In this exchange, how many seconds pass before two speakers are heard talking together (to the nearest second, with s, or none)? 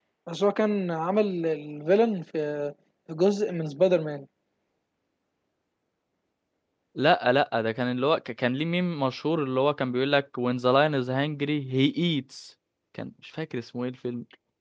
none